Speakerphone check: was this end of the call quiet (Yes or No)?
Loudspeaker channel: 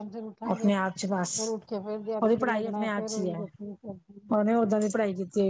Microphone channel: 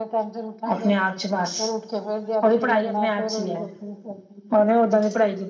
Yes